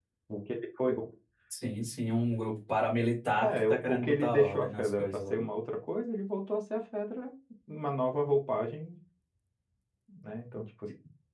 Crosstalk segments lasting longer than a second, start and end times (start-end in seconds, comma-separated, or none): 3.4-5.5